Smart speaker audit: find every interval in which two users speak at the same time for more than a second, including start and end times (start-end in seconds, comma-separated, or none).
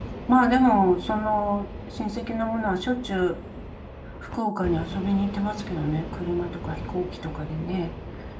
none